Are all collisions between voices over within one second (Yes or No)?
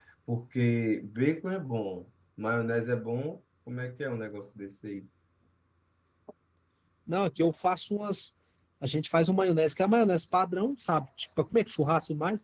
Yes